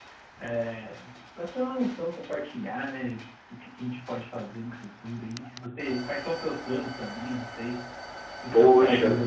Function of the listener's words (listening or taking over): taking over